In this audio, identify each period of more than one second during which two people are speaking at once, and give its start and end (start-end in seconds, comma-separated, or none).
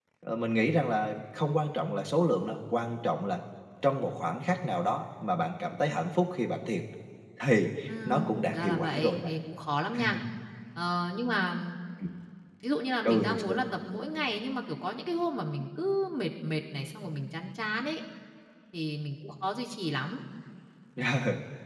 7.9-9.3